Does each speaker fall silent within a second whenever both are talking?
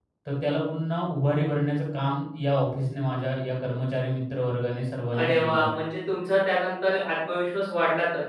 Yes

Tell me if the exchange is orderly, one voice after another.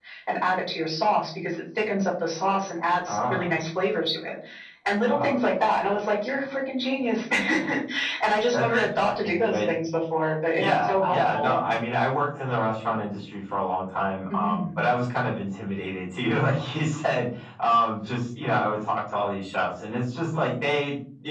No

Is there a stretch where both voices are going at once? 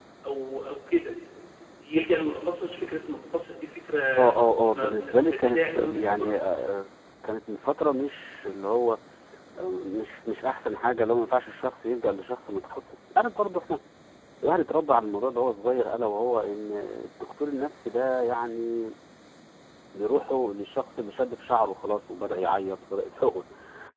Yes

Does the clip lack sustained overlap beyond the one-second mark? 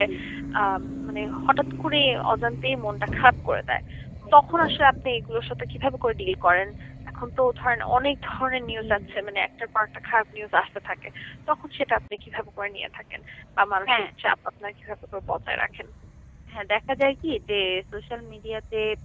Yes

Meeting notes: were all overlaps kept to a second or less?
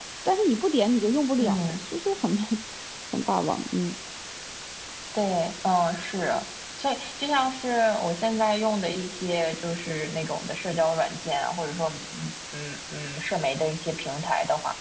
Yes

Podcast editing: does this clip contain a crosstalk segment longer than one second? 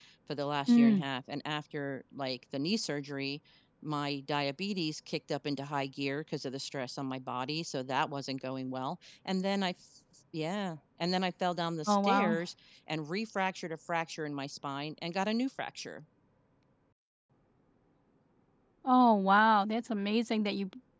No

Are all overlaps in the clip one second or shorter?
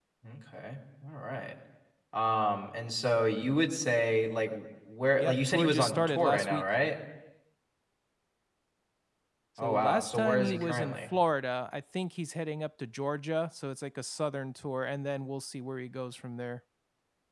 No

